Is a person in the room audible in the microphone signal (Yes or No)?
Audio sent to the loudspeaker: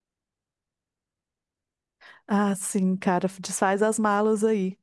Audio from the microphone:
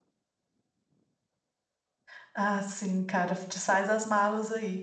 No